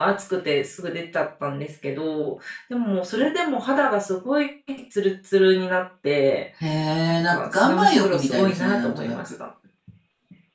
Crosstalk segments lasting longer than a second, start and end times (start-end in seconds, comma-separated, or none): 7.3-9.3